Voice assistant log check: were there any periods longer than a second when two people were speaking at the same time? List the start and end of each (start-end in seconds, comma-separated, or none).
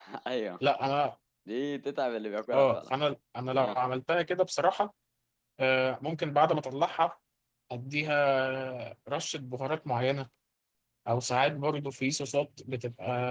none